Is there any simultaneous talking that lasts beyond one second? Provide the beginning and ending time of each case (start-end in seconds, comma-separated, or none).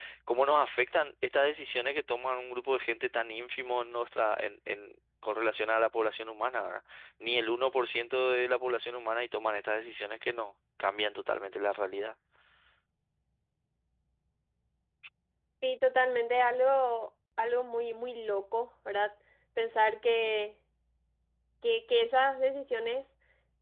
none